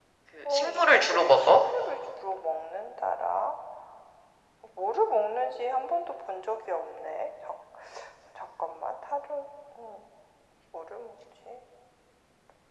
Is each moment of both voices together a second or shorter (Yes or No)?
No